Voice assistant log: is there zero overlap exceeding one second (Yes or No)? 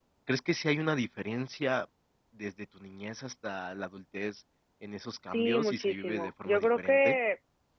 No